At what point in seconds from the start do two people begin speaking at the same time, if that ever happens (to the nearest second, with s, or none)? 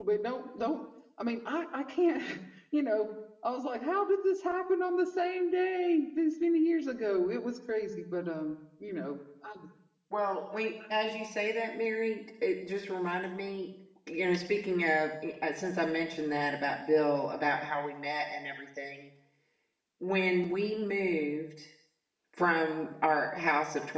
none